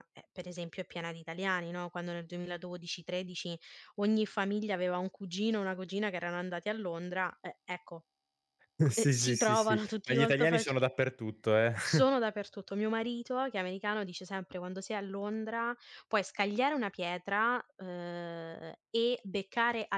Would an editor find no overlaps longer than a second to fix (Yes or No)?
No